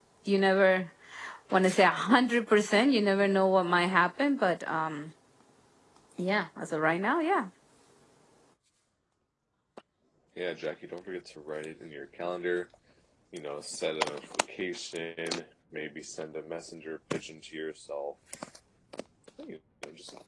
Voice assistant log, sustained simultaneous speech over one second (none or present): none